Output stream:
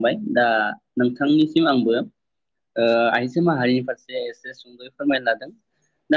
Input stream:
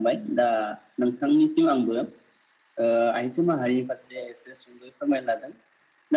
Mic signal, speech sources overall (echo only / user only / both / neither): echo only